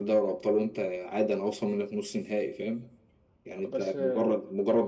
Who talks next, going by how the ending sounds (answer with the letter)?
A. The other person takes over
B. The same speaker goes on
B